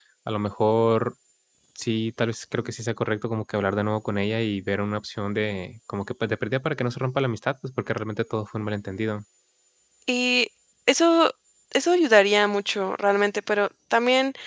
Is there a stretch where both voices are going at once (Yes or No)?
No